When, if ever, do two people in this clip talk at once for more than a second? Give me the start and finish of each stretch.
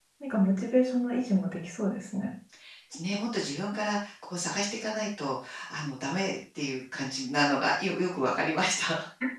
none

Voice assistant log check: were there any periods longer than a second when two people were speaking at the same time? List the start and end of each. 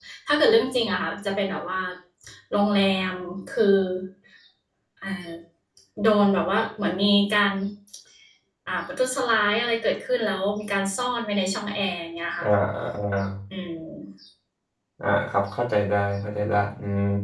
none

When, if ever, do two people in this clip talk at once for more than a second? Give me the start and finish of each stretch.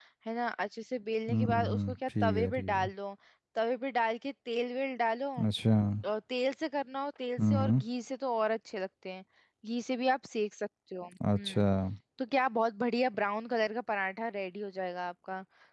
1.3-2.9

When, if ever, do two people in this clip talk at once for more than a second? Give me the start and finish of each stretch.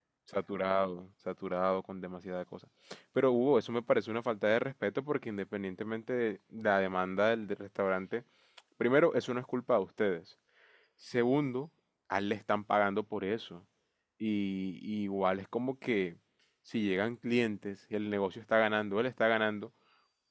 none

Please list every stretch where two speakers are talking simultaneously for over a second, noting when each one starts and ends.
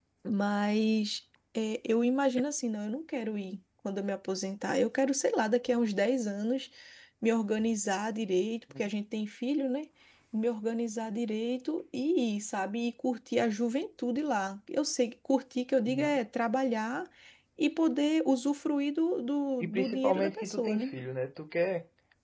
19.6-20.9

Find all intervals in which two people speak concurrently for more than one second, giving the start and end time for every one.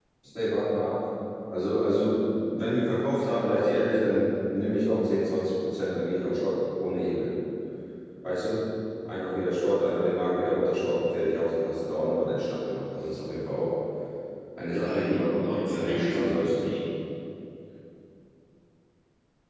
14.7-16.8

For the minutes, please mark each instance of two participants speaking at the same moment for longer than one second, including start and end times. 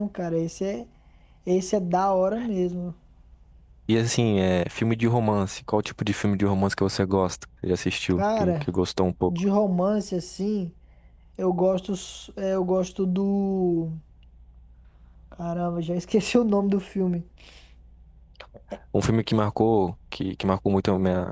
none

